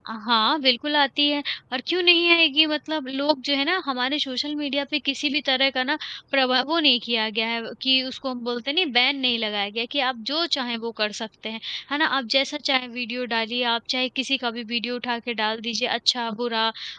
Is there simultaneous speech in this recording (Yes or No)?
No